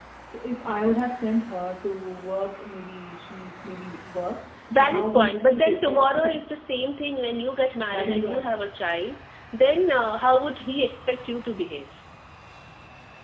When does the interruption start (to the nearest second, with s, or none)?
5 s